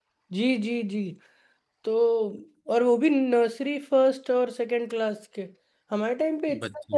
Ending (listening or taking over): listening